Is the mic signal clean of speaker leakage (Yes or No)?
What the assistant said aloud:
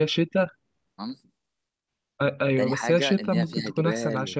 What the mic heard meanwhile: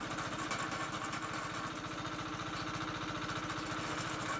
Yes